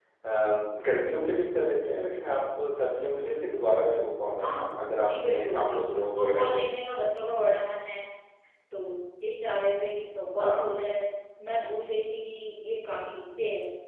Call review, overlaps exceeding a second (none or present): present